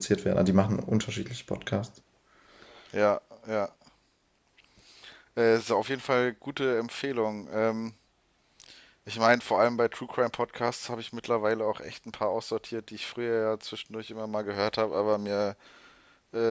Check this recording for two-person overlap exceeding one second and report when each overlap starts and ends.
none

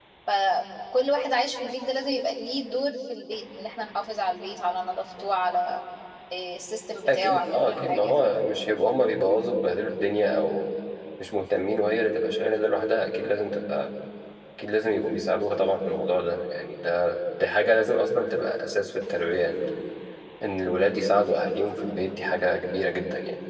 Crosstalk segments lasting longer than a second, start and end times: 7.1-8.5

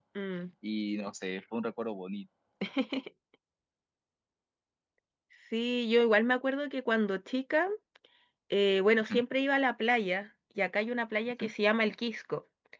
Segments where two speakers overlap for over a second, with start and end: none

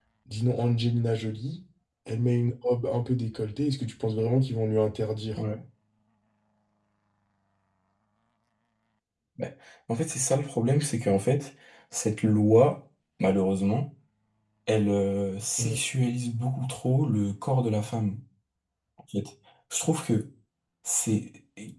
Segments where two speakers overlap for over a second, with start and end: none

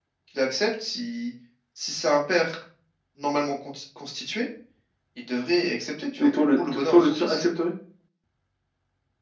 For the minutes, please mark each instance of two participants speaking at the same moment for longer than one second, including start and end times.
6.2-7.4

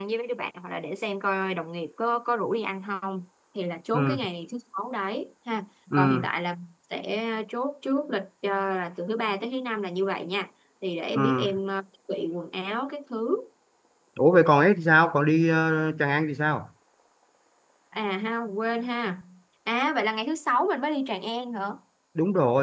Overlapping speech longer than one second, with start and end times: none

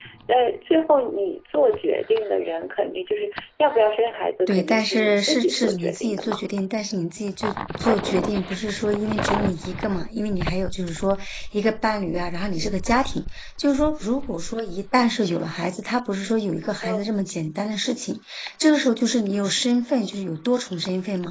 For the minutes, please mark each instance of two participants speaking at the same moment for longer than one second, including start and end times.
4.5-6.4

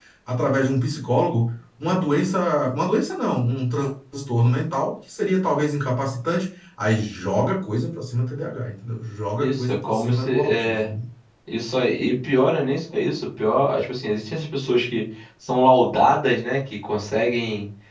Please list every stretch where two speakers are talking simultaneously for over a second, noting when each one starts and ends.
9.4-10.9

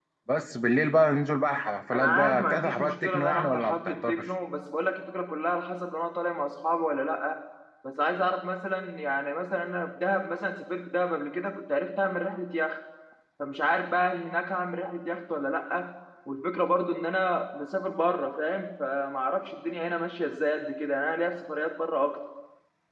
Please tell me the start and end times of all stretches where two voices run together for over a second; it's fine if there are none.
1.9-4.3

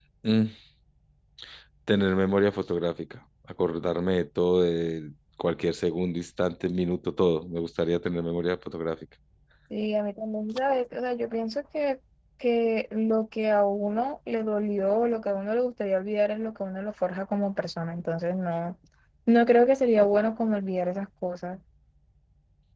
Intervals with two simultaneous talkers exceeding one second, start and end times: none

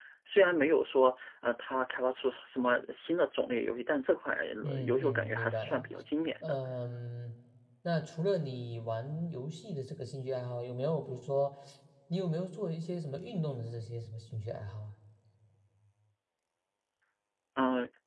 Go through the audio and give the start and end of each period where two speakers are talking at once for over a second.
4.6-5.8

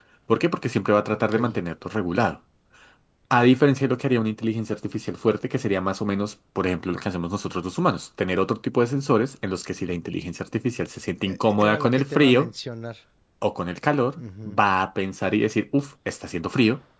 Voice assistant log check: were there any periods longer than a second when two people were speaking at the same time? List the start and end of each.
11.3-12.5

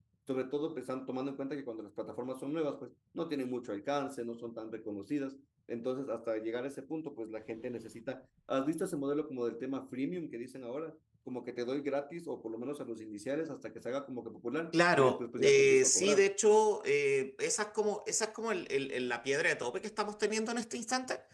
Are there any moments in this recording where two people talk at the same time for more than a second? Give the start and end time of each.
14.7-16.3

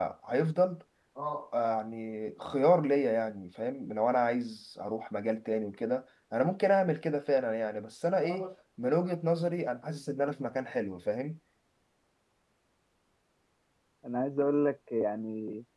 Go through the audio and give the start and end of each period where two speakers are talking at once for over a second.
none

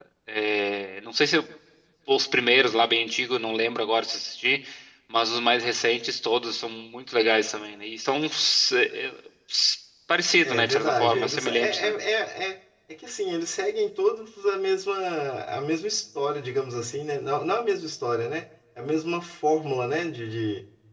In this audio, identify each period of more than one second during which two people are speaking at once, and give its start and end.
10.4-11.9

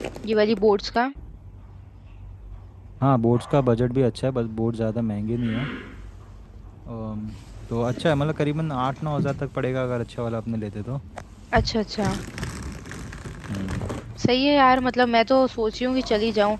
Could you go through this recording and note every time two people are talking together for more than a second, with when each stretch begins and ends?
none

